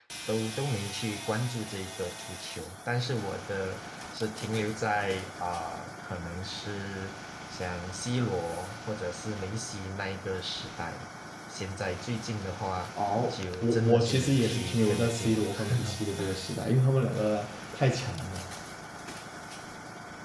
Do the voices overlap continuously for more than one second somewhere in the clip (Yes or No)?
Yes